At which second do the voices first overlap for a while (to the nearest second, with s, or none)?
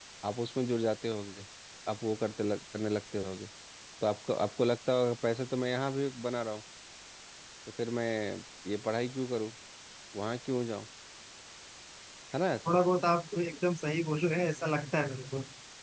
none